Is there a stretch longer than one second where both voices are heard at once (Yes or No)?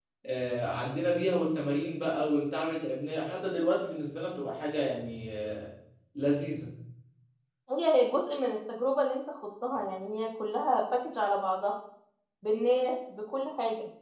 No